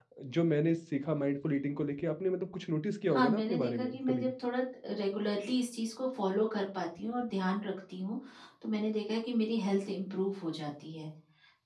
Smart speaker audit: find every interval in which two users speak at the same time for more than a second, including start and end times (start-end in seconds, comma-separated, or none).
3.1-4.3